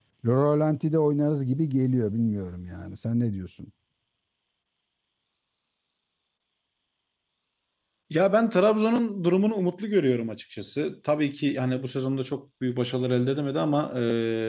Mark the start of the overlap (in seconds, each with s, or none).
none